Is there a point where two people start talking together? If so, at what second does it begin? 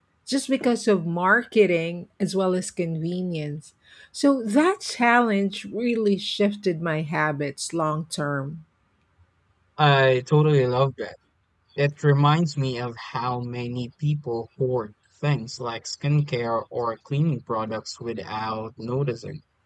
none

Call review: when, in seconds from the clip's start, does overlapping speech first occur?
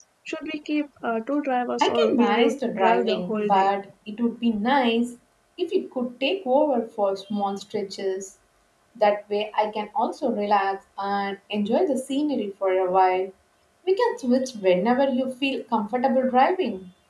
1.8 s

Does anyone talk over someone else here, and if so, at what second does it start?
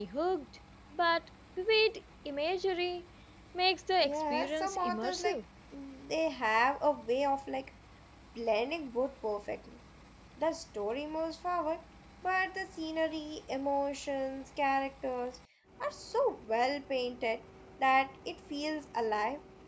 4.0 s

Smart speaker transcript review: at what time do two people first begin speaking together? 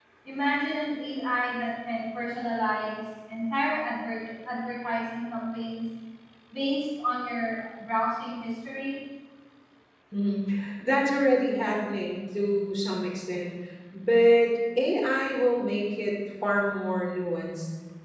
none

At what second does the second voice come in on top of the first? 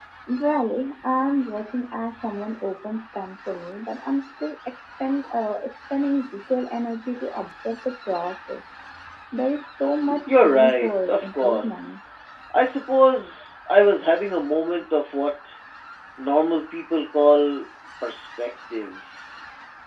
10.1 s

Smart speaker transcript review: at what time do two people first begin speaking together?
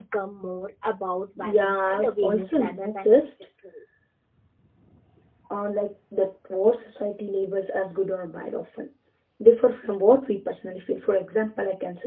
1.4 s

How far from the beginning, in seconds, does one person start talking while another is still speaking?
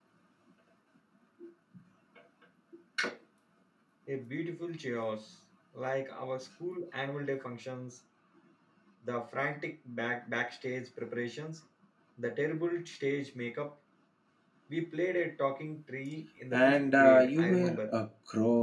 16.5 s

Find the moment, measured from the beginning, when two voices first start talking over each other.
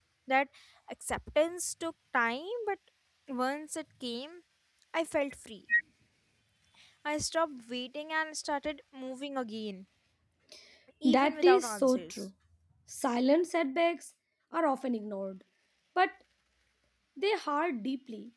11.0 s

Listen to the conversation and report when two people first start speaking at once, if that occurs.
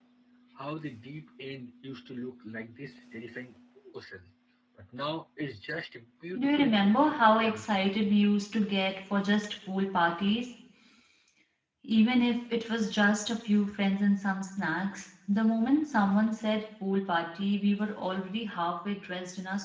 6.3 s

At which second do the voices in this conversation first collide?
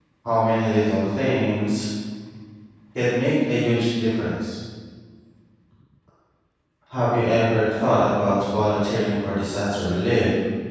none

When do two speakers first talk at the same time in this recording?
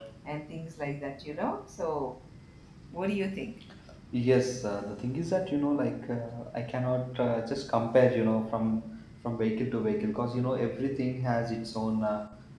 none

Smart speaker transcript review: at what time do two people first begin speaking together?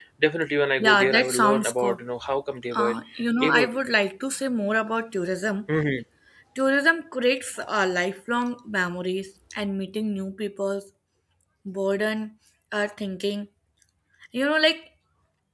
0.8 s

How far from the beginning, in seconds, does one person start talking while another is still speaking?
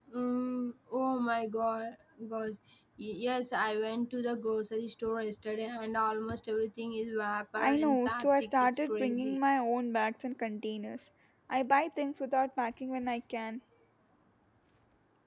7.6 s

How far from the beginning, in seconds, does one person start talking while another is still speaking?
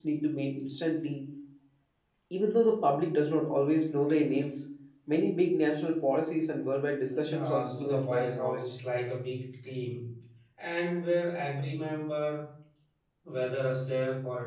7.1 s

